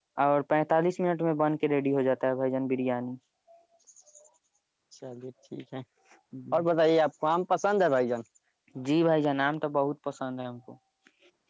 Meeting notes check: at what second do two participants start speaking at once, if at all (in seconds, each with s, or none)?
none